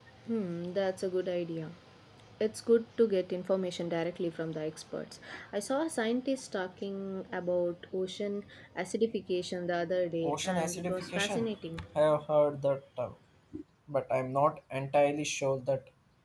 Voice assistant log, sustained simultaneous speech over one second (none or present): present